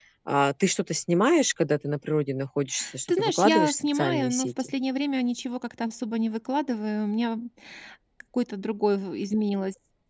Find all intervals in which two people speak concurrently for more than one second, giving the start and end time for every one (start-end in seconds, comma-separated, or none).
3.1-4.7